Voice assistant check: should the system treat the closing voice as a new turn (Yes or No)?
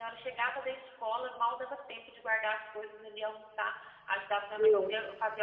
No